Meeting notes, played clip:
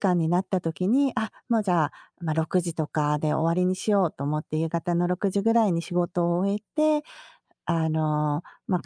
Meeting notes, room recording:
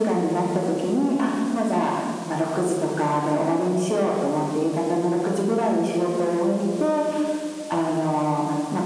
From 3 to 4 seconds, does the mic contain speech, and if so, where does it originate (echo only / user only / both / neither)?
echo only